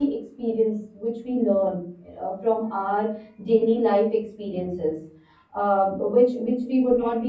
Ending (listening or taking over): listening